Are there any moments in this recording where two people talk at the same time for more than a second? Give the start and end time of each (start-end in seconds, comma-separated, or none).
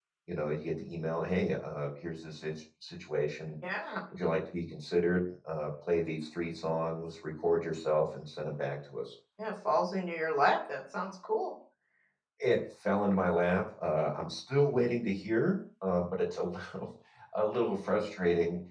none